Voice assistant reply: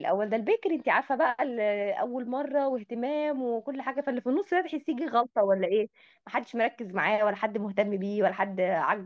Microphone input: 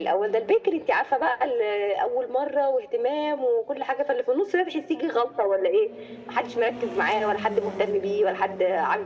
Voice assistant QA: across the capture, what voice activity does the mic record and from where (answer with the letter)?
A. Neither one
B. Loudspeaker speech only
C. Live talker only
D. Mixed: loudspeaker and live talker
B